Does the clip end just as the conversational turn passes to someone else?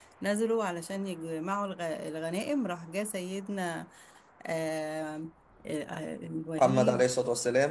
Yes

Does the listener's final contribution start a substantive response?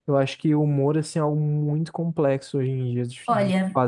Yes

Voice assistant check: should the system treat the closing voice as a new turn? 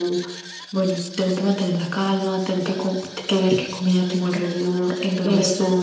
No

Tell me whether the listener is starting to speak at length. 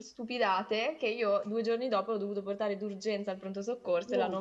No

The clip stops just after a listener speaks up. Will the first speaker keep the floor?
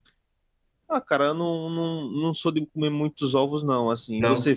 Yes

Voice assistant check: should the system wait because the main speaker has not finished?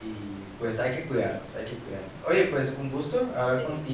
Yes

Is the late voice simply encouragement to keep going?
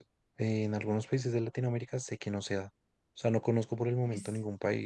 Yes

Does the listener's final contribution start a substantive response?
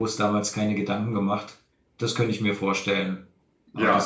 Yes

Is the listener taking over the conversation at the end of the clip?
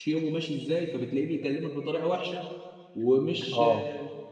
No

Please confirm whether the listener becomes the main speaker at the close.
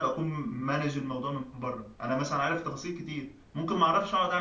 No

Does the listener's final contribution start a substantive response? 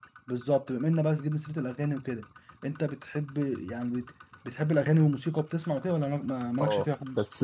Yes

